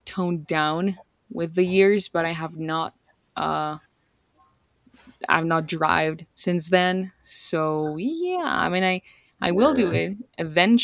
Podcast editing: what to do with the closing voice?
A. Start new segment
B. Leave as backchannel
B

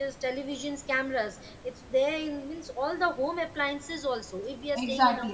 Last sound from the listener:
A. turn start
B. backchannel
A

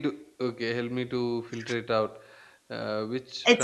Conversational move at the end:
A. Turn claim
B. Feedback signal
A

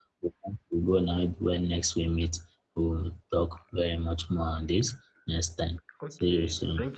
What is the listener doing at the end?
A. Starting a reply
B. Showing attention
A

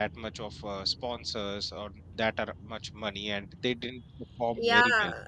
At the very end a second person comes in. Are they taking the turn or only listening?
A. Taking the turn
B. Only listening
A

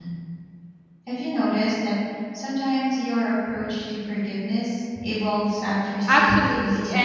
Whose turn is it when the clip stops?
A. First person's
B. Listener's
B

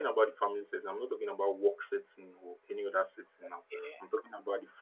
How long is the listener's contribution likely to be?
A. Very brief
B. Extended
A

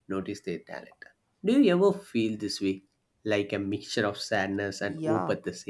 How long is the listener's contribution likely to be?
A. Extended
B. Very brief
A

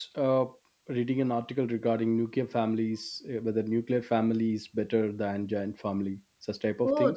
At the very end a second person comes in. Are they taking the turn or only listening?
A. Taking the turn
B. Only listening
A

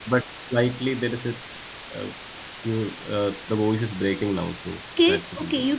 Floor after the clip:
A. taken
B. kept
A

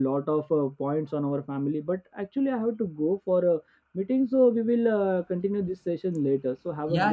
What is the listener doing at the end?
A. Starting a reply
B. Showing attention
A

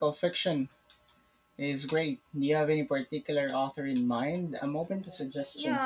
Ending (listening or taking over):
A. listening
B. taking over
B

